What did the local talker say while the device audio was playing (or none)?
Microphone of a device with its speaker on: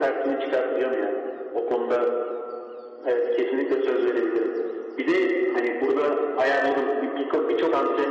none